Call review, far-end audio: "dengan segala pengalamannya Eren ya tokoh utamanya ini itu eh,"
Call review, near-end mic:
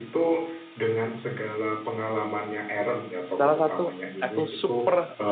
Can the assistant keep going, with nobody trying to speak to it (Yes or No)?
No